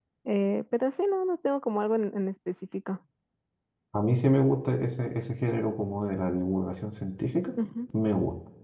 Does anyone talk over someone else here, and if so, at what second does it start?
none

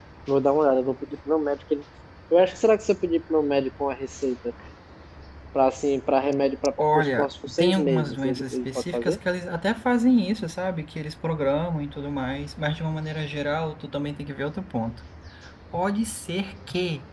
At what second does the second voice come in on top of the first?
6.8 s

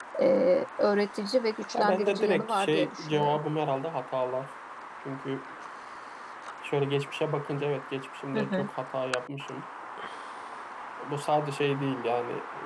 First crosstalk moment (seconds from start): 1.7 s

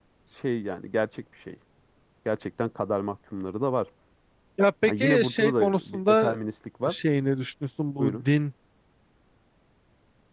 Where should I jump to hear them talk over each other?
4.8 s

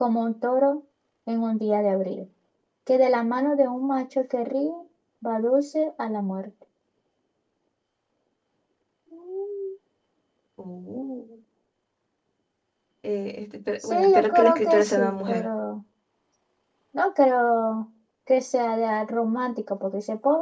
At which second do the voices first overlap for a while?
13.8 s

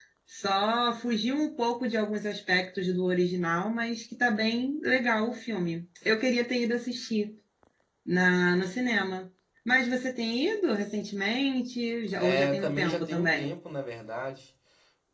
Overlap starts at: 12.2 s

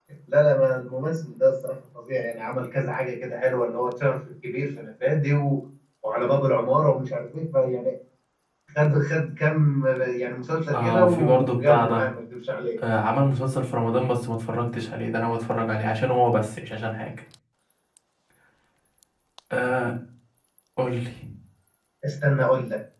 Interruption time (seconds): 10.7 s

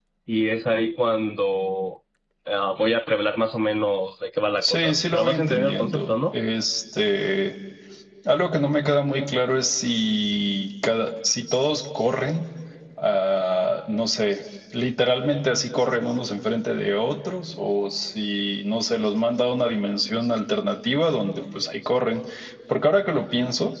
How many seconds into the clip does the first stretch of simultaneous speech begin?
4.6 s

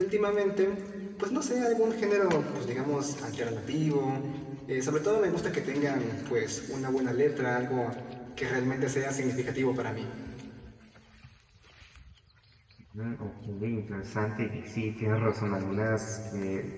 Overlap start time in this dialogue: none

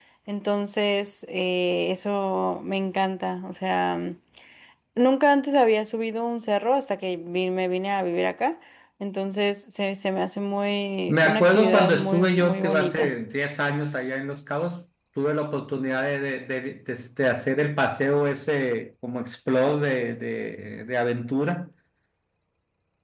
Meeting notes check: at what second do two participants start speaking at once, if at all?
11.1 s

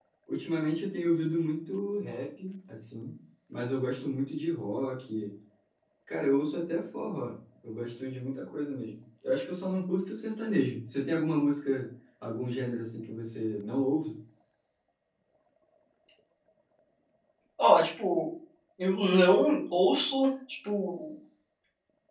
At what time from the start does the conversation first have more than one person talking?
none

